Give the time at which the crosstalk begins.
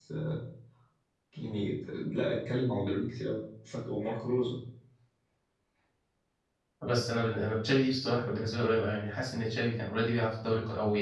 none

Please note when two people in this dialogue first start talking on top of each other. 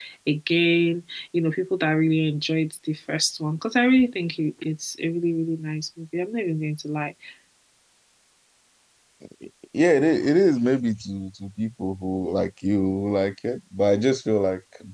none

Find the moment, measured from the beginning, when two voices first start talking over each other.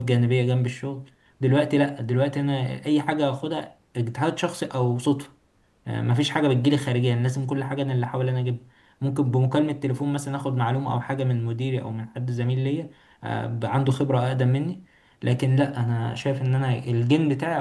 none

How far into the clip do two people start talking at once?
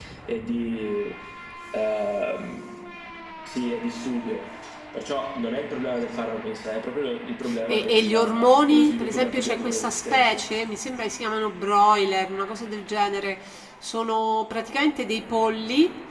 7.5 s

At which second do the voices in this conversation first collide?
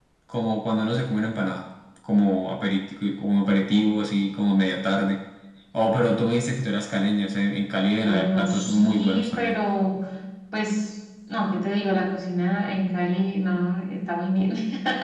8.0 s

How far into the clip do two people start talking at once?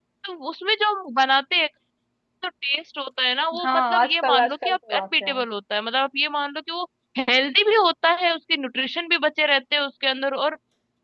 3.5 s

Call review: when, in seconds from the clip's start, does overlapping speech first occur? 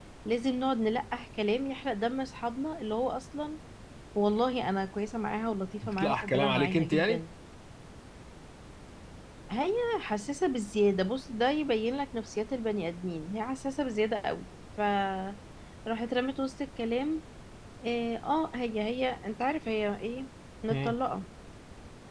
5.8 s

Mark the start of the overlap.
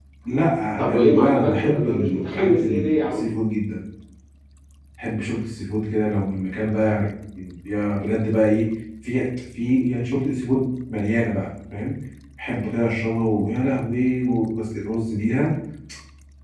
0.8 s

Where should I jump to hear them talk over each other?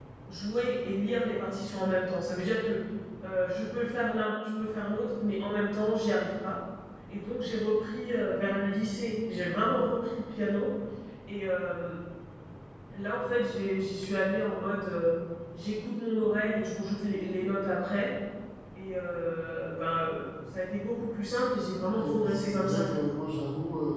21.8 s

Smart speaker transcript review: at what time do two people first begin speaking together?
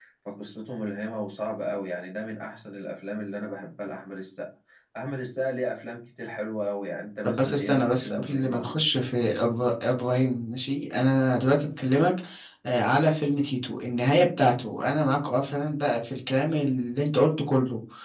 7.2 s

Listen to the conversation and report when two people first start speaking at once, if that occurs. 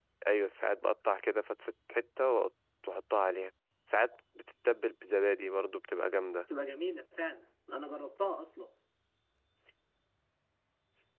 none

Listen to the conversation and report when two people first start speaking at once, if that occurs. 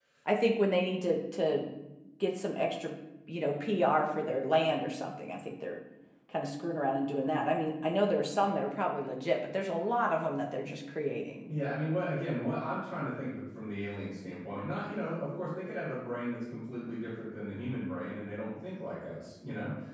none

